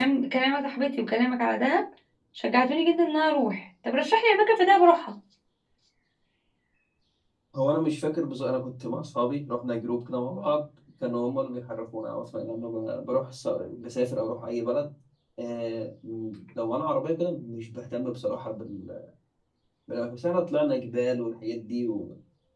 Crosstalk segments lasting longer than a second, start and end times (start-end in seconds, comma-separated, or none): none